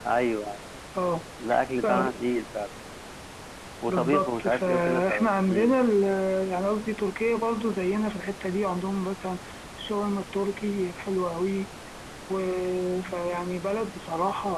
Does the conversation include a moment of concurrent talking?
Yes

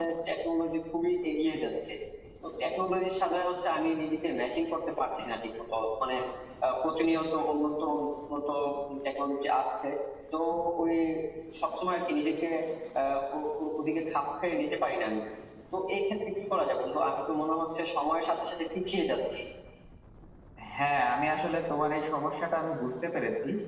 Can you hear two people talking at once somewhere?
No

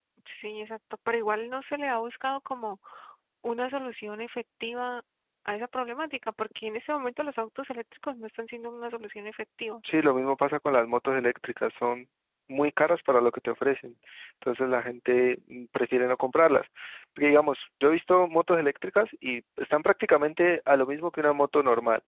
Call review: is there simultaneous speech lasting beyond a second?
No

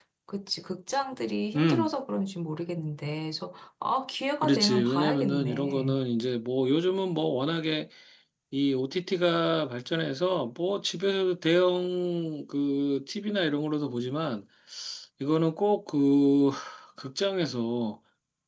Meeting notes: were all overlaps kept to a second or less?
No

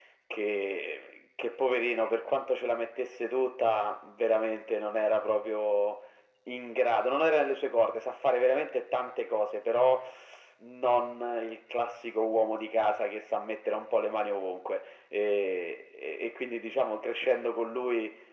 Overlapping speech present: No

